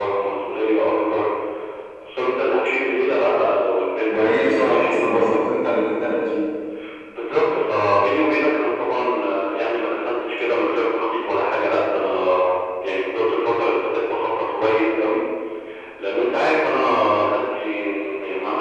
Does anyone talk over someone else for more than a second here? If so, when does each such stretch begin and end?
4.1-5.5

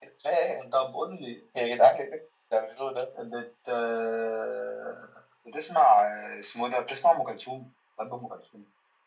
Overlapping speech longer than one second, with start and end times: none

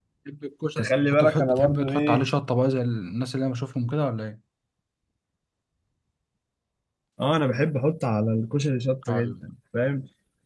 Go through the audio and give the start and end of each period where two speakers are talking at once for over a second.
0.8-2.2

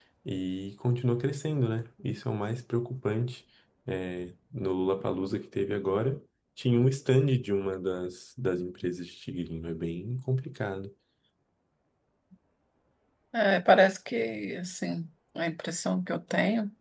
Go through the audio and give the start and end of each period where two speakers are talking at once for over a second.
none

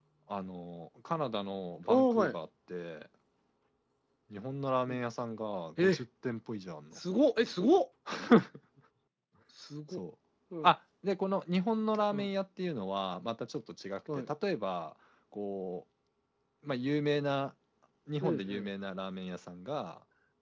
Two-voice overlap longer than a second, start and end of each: none

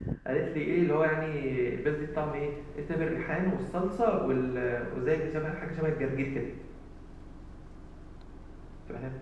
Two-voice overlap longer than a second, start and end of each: none

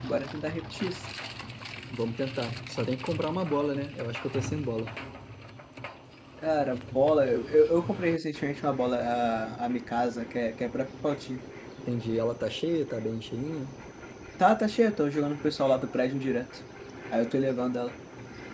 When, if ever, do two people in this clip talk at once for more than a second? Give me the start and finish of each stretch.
none

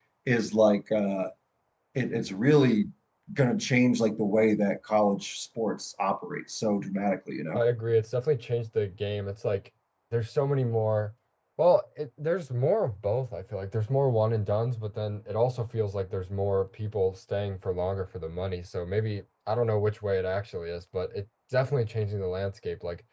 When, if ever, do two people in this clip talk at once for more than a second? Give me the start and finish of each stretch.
none

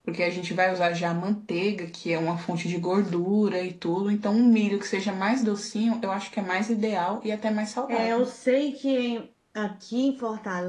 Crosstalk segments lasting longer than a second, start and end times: none

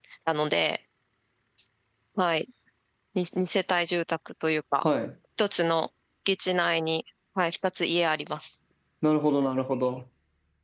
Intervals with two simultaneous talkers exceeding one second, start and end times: none

